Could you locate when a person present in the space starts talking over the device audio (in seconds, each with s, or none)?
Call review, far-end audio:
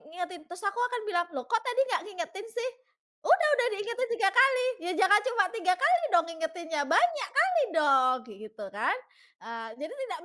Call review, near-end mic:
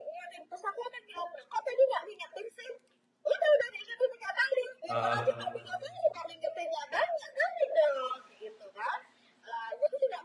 4.9 s